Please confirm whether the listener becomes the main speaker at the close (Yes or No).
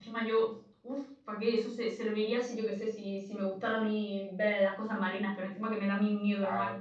Yes